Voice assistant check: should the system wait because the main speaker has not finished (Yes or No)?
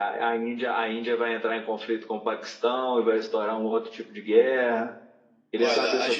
No